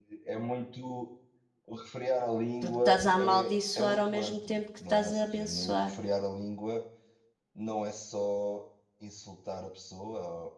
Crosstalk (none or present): present